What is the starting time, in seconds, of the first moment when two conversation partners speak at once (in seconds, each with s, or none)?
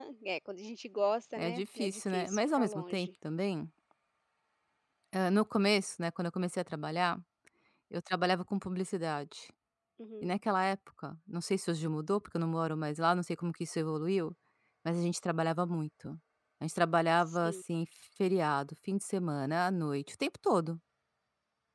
1.4 s